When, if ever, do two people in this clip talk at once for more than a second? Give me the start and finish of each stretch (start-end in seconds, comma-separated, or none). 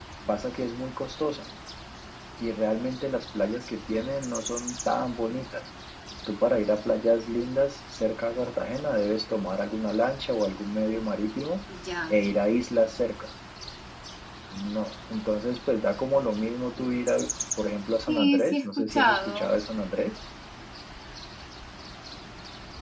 18.1-19.5